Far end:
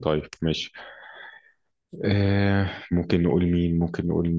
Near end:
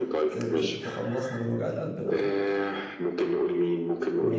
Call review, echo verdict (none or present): present